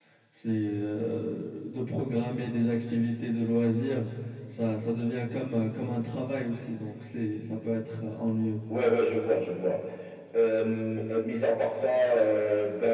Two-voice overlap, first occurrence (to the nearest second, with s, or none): none